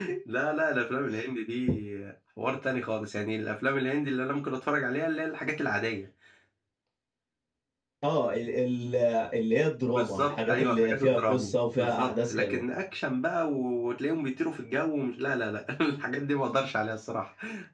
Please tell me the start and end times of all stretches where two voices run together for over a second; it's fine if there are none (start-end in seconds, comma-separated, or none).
9.9-12.6